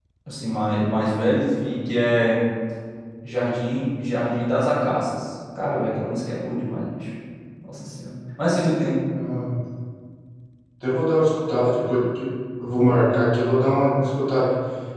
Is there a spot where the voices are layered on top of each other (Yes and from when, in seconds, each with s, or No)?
No